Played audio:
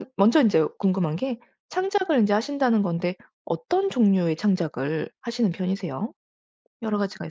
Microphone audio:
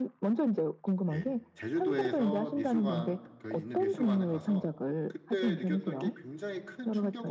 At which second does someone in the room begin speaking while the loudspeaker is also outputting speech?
1 s

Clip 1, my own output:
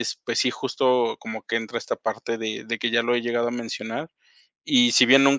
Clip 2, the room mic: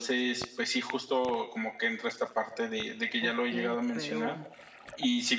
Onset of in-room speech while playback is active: 3 s

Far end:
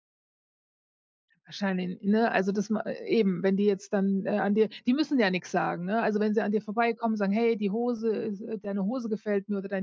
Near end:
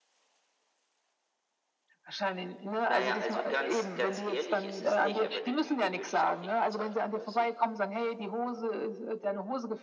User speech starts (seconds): 3 s

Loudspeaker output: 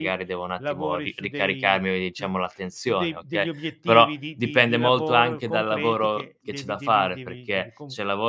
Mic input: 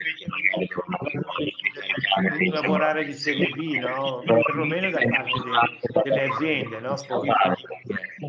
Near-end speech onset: 2 s

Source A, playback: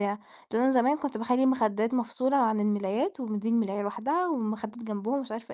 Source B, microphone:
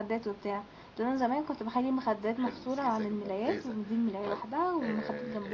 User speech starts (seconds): 2 s

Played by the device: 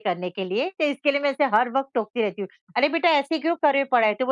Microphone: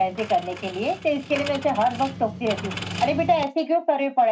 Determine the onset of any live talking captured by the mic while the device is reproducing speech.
none

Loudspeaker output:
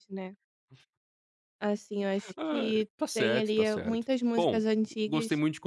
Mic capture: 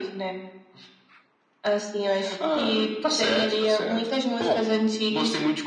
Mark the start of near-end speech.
none

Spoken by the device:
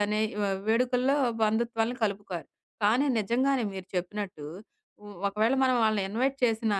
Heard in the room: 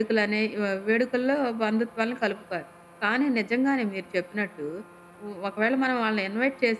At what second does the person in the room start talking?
none

